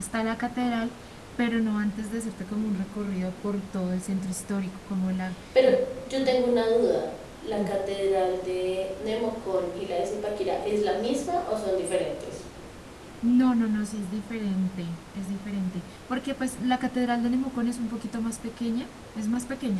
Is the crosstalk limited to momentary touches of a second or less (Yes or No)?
Yes